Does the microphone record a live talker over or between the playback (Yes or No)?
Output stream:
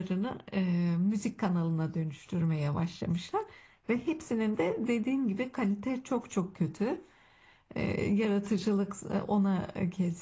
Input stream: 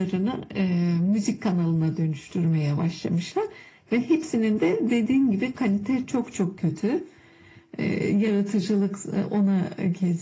No